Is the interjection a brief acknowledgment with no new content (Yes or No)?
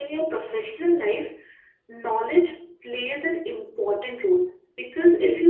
Yes